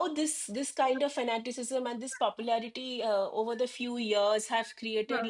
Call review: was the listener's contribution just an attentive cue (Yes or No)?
Yes